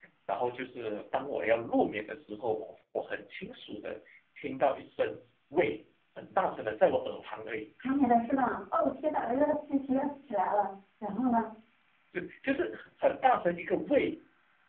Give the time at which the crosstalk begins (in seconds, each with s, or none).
none